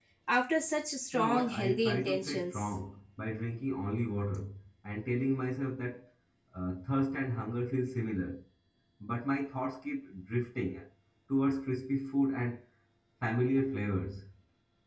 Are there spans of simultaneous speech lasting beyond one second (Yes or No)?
Yes